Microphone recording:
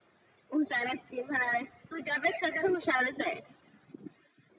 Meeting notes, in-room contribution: none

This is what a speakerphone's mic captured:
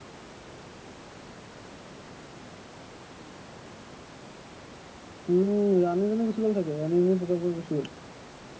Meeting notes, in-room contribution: present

